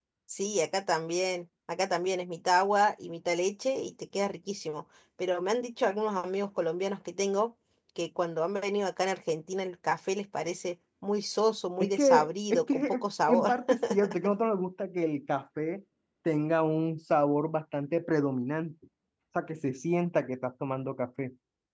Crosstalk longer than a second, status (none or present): present